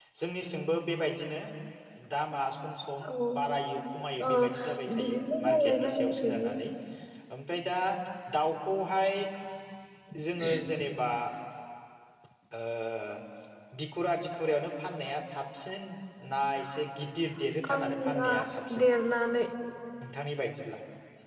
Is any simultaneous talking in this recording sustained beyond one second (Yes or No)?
Yes